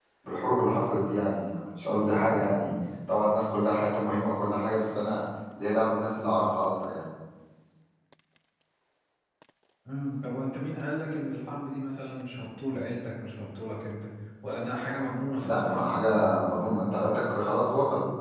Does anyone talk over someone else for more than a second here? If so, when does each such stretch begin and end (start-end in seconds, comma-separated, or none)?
none